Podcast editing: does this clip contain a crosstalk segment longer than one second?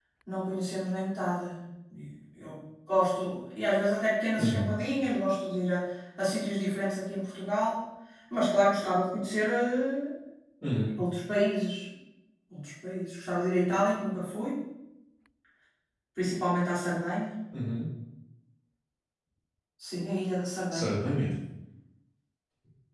No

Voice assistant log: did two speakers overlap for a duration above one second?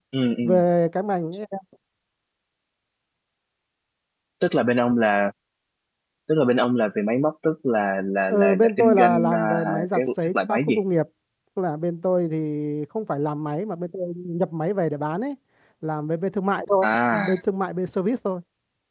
Yes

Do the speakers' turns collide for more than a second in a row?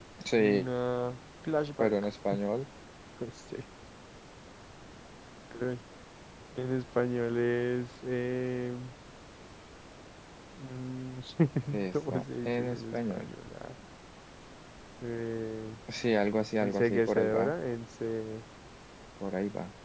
Yes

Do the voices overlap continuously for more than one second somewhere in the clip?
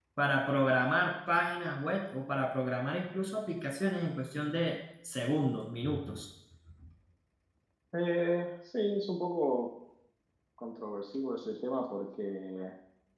No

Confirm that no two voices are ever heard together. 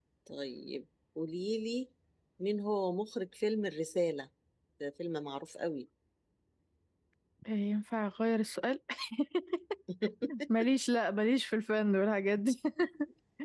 Yes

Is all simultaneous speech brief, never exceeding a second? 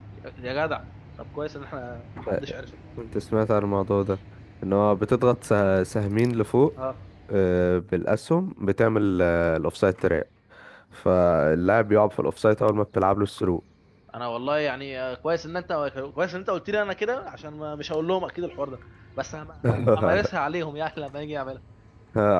Yes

